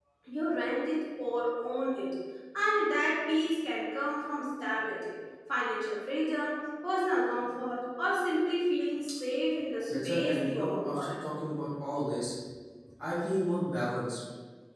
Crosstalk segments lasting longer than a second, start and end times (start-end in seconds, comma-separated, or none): 9.9-11.1